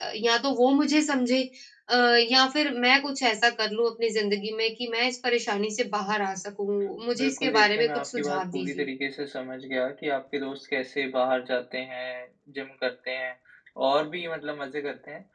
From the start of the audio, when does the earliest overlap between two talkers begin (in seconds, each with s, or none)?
7.2 s